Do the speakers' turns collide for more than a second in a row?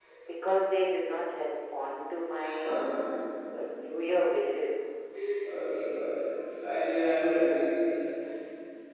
No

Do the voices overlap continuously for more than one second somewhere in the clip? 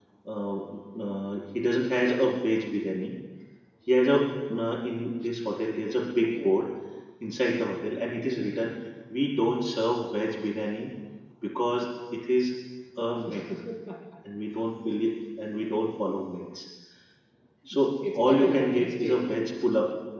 Yes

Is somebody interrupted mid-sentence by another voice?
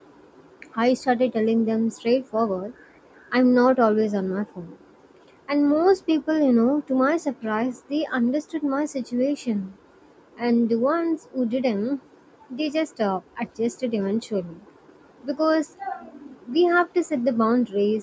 No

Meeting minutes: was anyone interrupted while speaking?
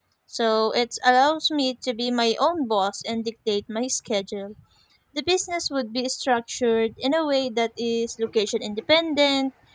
No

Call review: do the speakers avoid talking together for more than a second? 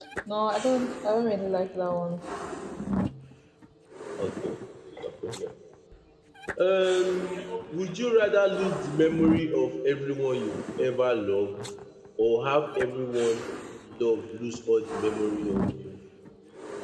Yes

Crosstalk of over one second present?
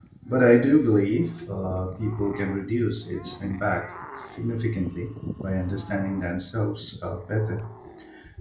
No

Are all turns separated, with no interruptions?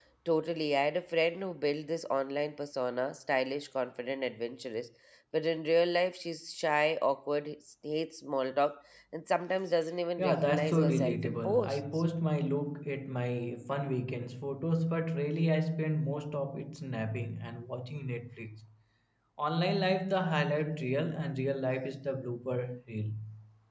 No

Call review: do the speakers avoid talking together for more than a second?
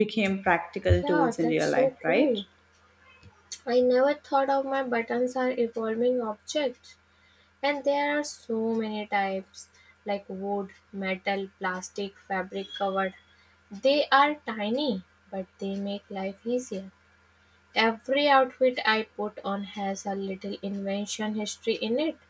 No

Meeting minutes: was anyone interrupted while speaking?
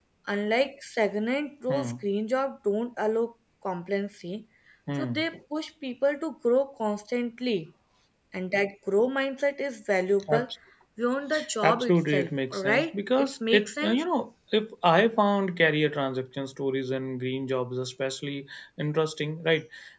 Yes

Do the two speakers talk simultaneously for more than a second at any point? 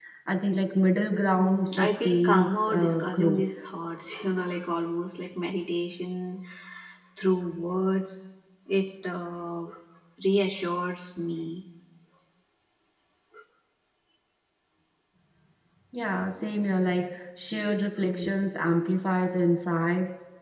Yes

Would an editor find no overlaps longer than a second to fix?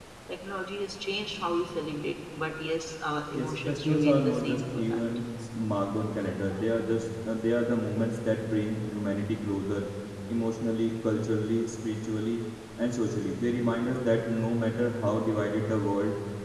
No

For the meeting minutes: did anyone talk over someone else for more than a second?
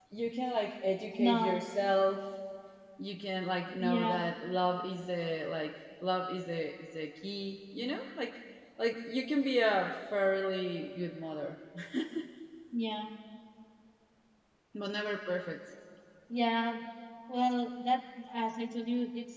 No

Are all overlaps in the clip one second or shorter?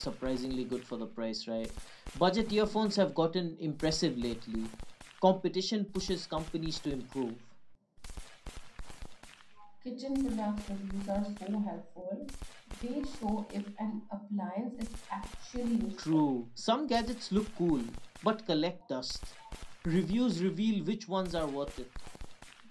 Yes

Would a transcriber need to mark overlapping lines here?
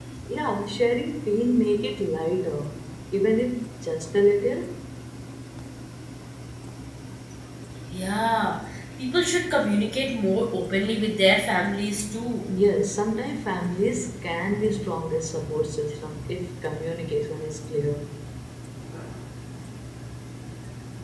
No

